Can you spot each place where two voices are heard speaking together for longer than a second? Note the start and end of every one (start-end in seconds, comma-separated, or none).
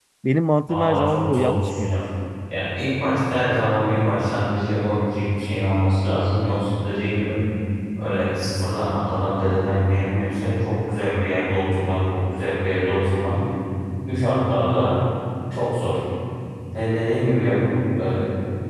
0.7-1.9